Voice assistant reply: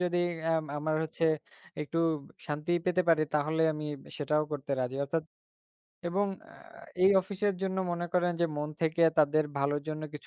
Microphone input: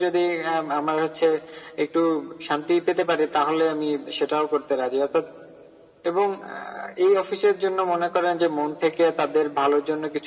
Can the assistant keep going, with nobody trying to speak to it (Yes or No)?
Yes